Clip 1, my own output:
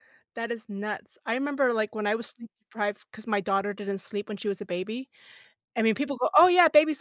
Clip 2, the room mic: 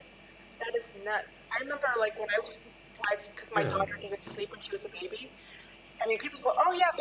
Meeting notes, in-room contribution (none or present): present